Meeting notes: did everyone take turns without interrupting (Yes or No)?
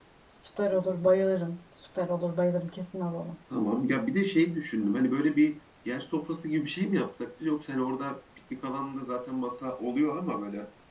Yes